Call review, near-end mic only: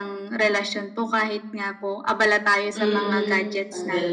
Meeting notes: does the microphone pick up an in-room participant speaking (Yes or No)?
Yes